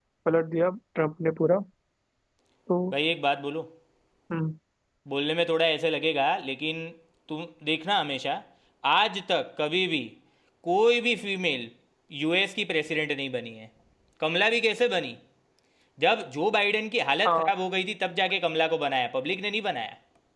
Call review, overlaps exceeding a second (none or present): none